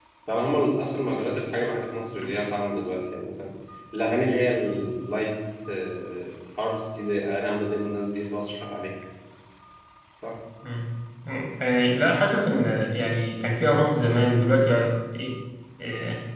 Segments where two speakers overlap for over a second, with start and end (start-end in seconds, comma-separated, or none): none